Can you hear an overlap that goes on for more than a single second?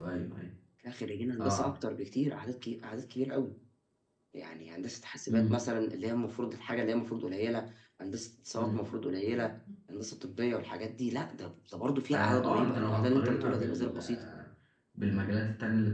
Yes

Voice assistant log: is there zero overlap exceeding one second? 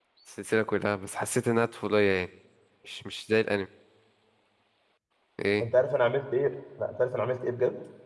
Yes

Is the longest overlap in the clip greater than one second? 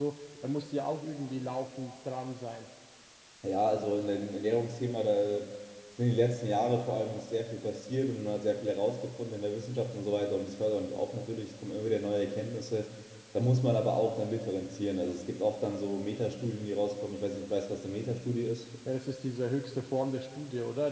No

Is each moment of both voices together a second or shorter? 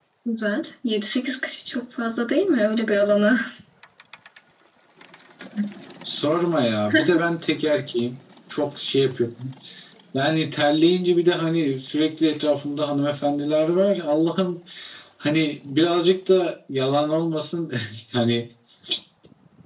Yes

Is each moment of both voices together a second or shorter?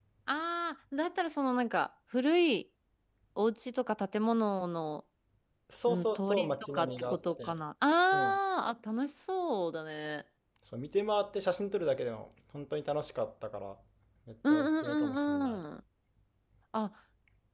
No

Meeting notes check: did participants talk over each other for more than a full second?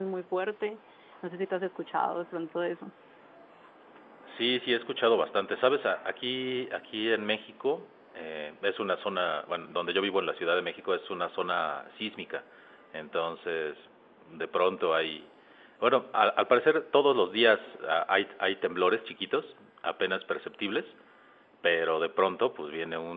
No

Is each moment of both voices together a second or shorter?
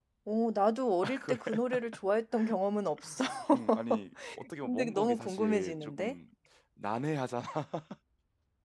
No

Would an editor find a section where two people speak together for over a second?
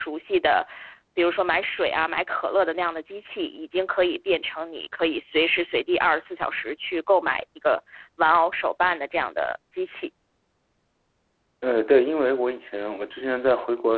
No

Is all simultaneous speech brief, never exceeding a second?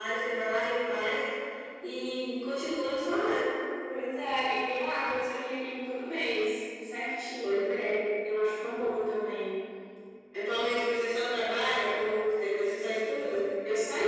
Yes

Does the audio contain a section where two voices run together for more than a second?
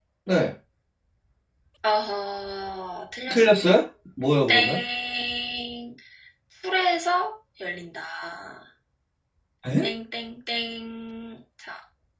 No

